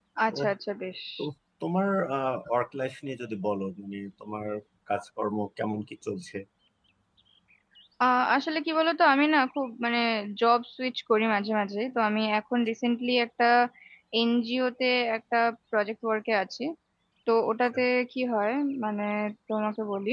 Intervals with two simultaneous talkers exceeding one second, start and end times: none

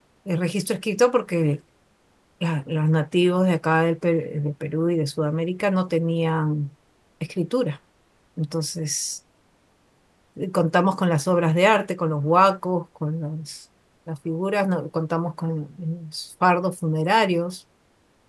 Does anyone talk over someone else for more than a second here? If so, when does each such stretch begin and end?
none

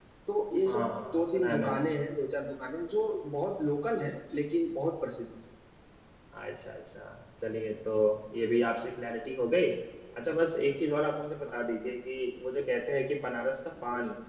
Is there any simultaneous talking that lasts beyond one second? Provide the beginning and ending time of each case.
0.7-1.9

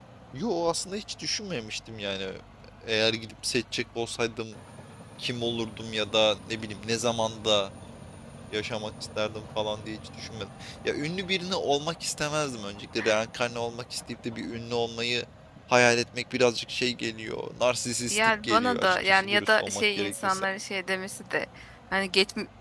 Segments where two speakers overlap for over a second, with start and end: 18.1-20.4

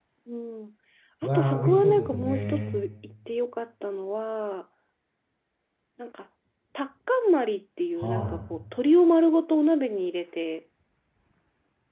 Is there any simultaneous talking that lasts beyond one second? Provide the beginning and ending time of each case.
1.4-2.7

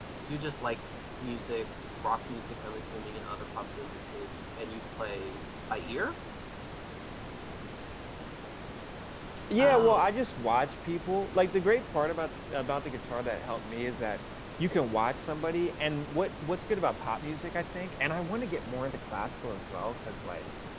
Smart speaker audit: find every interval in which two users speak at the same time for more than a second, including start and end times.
none

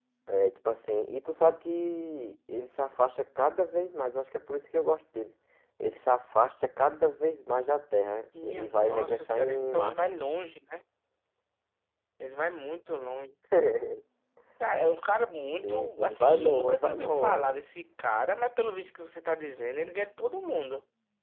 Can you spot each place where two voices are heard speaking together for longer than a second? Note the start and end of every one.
8.4-10.0, 15.6-17.5

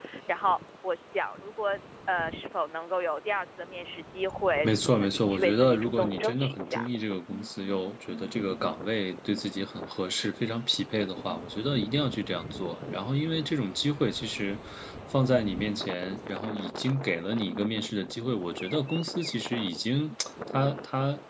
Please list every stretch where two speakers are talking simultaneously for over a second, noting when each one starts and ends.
4.6-6.9

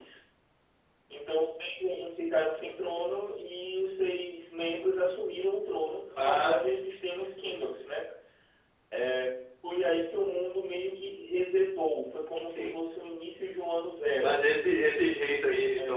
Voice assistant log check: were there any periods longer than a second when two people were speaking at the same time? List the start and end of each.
none

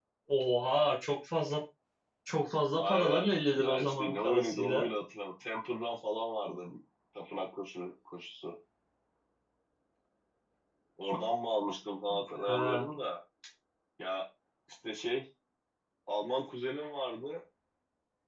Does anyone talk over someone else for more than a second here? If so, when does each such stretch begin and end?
2.8-4.9

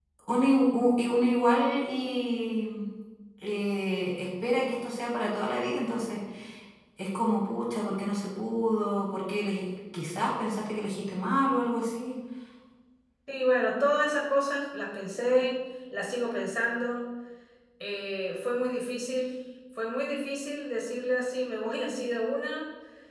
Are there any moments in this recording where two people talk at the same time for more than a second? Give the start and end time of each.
none

